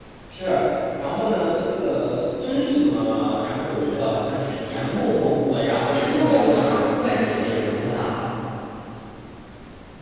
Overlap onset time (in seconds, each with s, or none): 5.9 s